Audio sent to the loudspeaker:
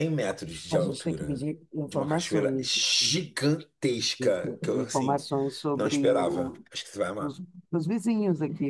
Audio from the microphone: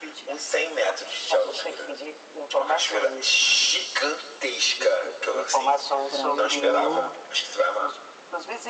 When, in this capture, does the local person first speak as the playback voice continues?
6.1 s

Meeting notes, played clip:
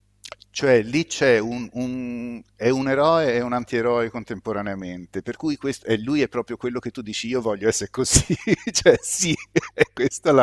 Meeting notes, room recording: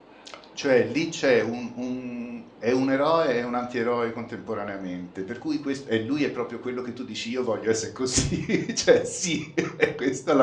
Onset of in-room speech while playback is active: none

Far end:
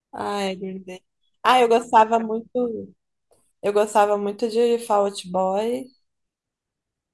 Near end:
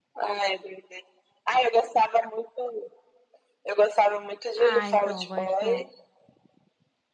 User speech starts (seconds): 4.5 s

